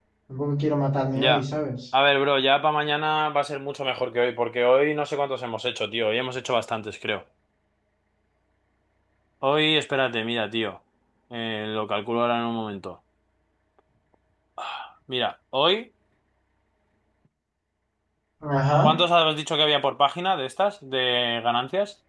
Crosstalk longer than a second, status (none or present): none